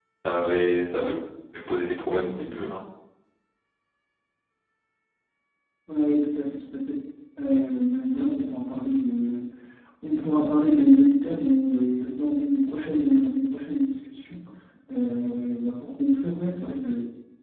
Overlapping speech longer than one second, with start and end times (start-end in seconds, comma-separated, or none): none